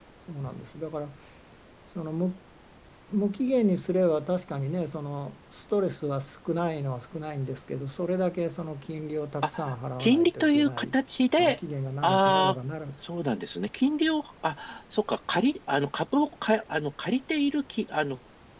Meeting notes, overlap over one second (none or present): present